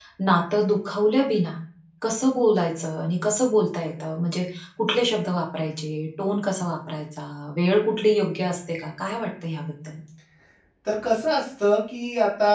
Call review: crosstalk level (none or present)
none